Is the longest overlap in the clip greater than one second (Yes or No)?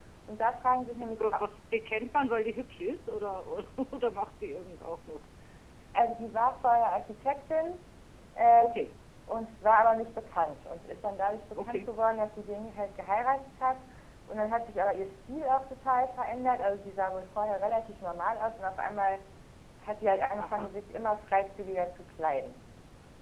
No